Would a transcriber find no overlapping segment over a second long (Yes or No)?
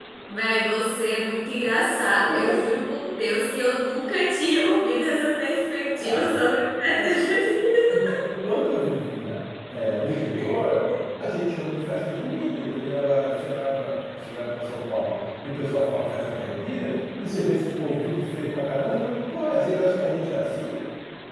Yes